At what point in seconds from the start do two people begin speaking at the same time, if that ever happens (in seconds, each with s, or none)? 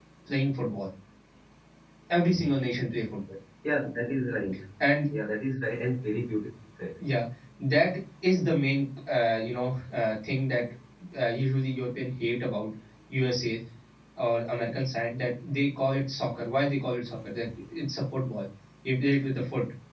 none